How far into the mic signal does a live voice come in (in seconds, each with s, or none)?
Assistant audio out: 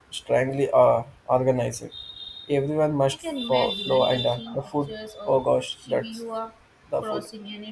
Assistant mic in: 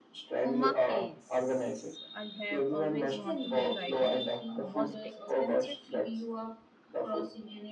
0.4 s